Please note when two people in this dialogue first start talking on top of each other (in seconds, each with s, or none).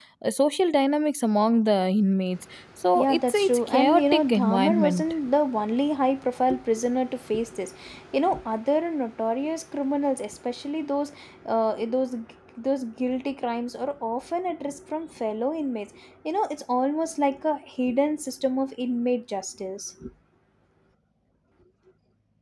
3.0 s